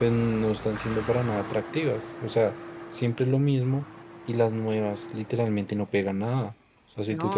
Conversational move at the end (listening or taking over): listening